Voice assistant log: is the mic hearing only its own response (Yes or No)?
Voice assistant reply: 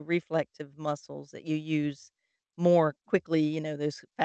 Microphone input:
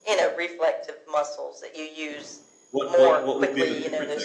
No